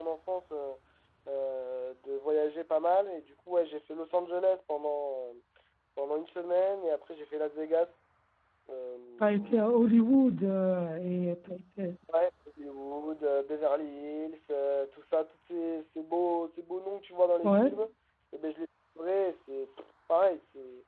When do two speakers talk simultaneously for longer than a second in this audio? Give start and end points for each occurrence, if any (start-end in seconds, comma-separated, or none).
none